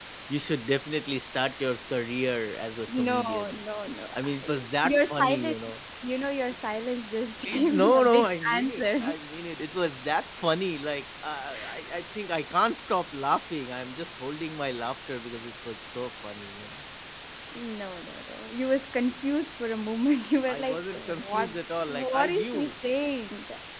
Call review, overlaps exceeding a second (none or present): present